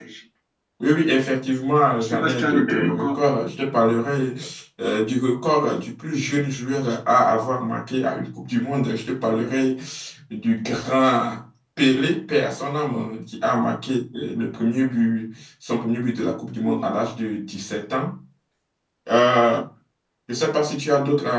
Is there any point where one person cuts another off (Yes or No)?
Yes